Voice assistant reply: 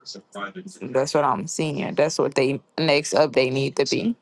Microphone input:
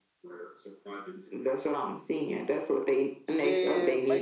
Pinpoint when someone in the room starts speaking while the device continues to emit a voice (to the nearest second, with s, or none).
3 s